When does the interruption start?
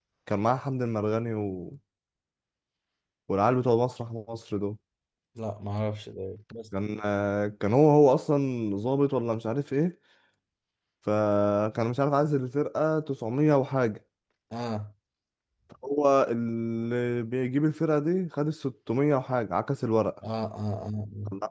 none

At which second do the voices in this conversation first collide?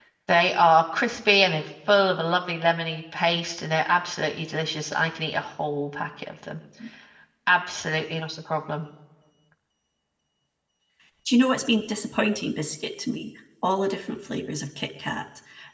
none

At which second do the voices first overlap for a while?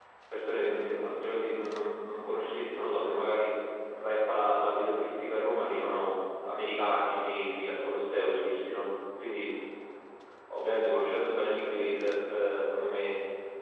none

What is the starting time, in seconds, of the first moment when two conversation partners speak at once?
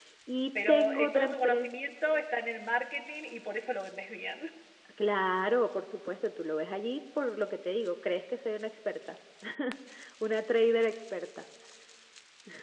0.6 s

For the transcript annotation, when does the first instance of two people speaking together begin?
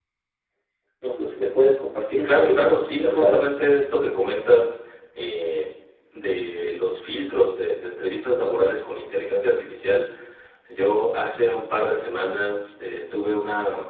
2.2 s

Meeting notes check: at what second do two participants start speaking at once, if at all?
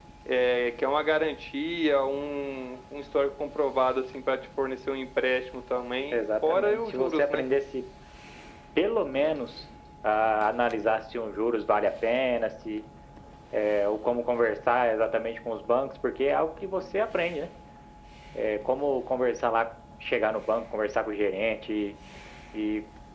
6.1 s

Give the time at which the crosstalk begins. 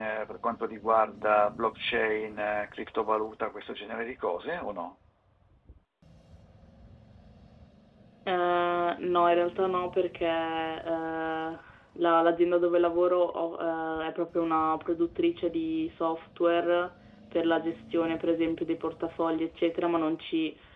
none

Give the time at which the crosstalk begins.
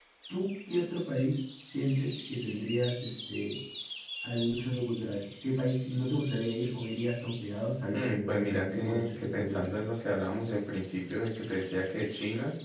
7.9 s

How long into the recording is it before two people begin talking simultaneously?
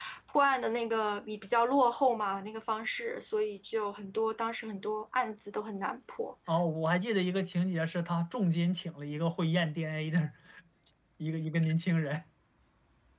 none

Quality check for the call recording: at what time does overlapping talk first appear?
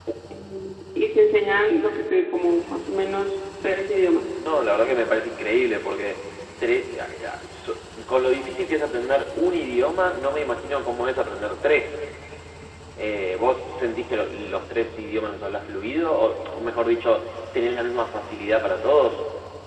none

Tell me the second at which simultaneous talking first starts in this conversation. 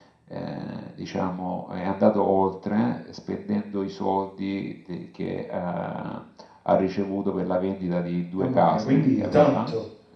8.4 s

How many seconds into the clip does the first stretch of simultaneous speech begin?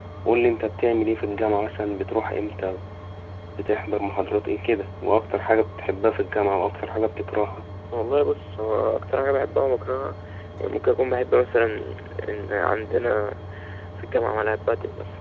none

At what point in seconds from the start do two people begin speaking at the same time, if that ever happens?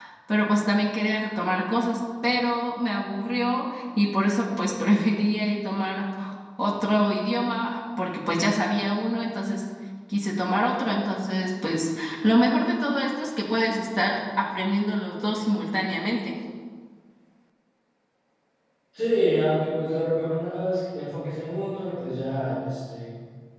none

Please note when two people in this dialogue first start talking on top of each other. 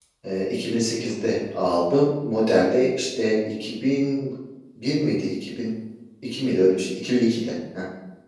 none

